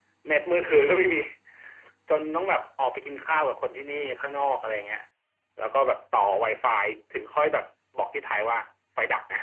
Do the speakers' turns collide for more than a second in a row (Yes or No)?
No